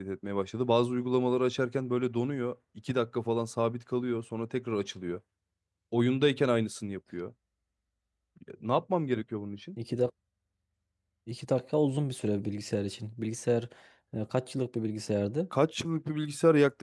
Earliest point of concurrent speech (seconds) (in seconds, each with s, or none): none